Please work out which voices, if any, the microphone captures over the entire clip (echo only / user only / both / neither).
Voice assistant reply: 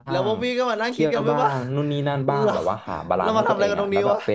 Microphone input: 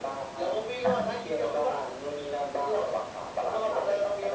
both